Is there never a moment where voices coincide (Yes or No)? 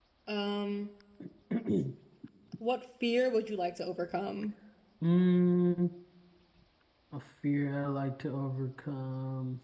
Yes